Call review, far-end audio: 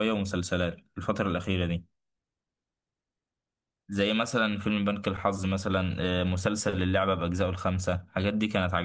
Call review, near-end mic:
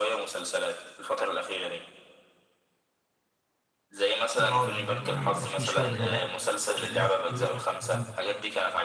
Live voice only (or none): يقعد يبقى فيه شوية غباء كده مش عارف ايه والكلام ده